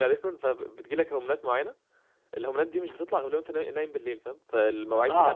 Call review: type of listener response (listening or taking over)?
taking over